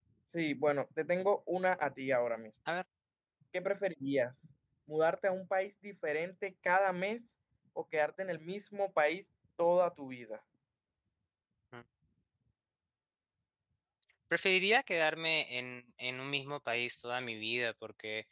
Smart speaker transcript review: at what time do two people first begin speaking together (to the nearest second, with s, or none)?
none